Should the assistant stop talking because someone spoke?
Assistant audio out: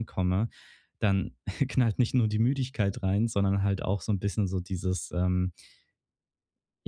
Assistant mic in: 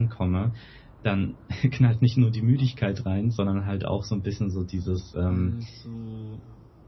Yes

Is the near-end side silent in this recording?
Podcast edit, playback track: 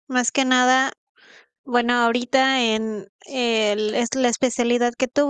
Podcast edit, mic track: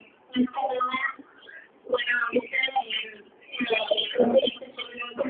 Yes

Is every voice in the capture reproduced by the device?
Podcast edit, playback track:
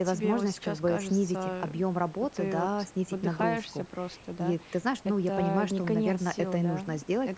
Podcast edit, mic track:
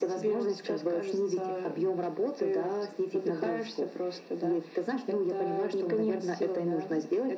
Yes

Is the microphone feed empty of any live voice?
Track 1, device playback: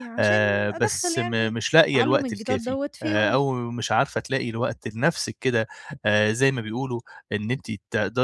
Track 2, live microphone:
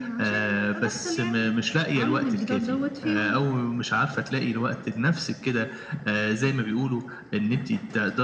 Yes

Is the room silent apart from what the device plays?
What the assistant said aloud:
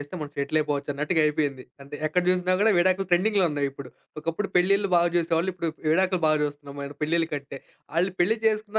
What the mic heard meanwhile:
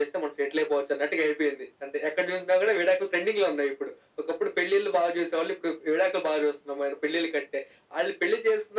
Yes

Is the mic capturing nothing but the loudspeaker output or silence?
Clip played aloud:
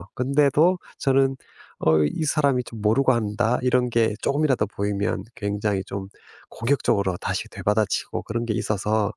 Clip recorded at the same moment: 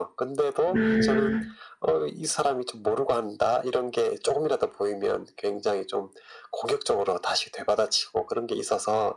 No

